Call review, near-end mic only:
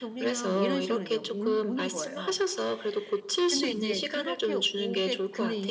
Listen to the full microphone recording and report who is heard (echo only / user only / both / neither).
both